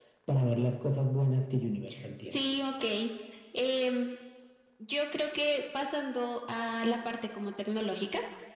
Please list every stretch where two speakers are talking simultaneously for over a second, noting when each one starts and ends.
none

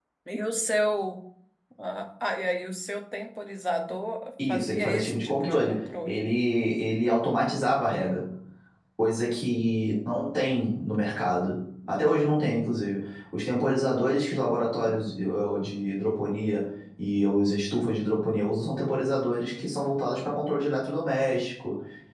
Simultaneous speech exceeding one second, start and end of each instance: 4.5-6.2

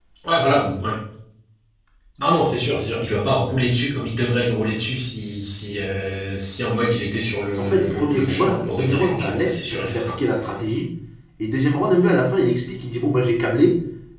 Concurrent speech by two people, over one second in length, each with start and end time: 7.6-10.1

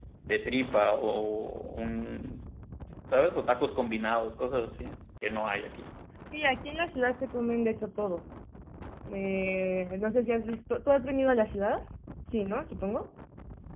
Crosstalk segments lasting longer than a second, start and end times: none

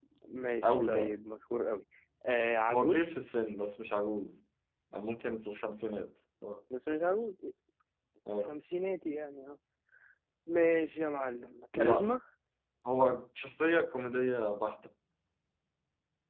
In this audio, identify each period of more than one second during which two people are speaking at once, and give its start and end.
none

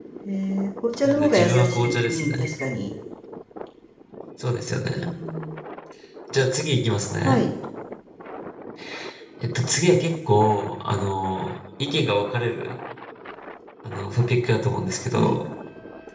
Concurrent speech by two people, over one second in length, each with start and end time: 1.0-2.3

